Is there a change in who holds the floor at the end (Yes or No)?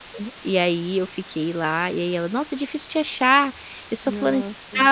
No